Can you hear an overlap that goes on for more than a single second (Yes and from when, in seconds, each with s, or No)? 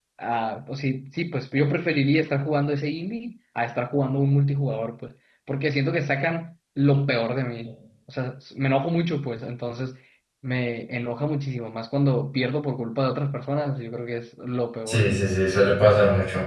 No